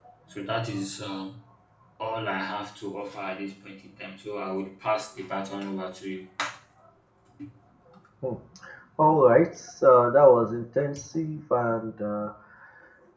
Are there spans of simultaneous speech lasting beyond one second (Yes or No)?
No